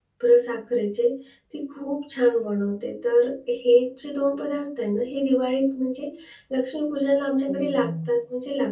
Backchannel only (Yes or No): Yes